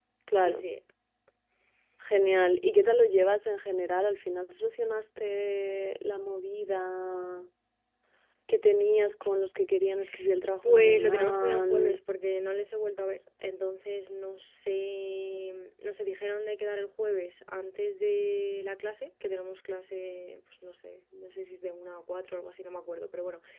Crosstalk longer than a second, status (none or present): present